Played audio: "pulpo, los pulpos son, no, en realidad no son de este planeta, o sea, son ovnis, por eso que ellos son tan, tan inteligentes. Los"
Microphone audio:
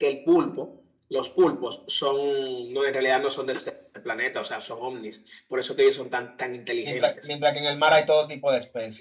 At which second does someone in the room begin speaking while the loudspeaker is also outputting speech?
7 s

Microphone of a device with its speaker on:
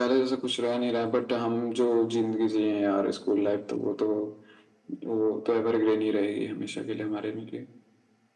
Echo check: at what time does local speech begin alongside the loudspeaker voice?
none

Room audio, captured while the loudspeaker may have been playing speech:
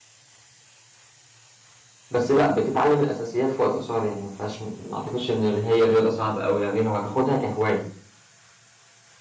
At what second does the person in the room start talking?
2 s

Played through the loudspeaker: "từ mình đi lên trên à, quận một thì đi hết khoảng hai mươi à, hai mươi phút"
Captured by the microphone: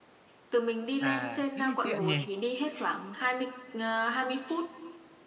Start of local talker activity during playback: 1 s

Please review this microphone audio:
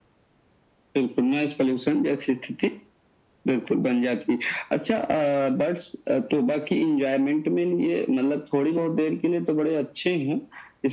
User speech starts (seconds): none

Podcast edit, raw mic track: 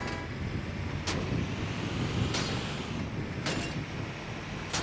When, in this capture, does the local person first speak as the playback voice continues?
none

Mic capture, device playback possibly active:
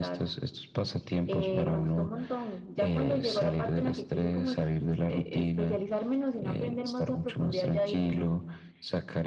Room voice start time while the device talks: none

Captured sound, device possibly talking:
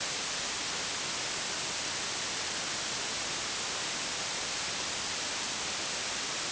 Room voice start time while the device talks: none

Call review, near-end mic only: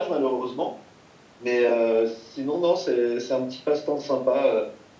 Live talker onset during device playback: none

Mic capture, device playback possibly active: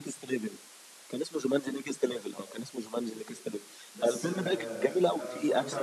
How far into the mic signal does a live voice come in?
4 s

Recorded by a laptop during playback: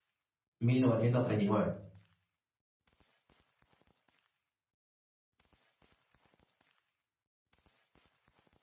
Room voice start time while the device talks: 1 s

